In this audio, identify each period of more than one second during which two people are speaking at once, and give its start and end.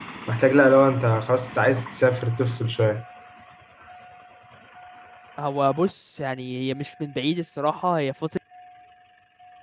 none

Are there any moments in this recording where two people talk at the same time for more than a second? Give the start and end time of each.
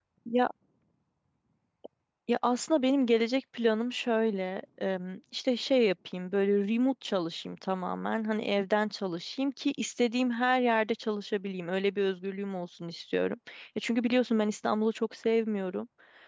none

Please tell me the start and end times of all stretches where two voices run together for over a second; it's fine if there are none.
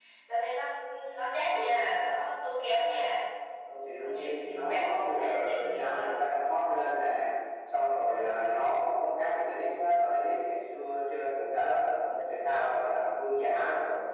4.0-6.2

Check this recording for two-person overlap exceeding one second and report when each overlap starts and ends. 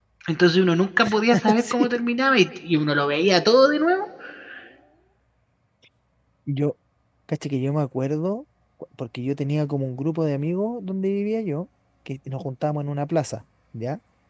none

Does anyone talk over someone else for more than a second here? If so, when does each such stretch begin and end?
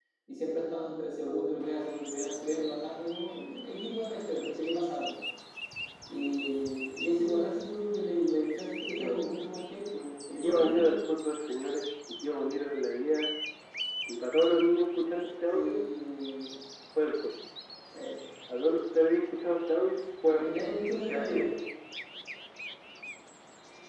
20.3-21.5

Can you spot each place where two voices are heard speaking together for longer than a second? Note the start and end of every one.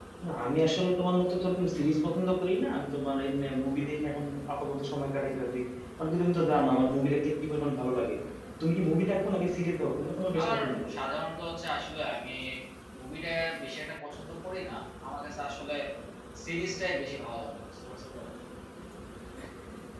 none

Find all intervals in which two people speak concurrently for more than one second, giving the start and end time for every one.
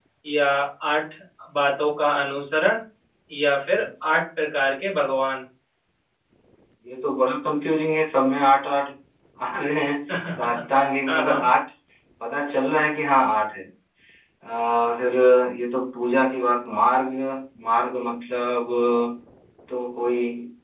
none

